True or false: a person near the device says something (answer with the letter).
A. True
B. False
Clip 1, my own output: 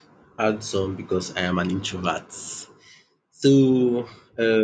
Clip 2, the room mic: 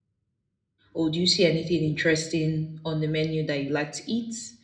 A